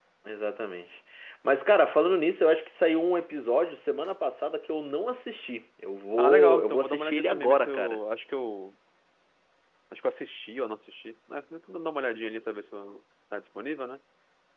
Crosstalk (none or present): present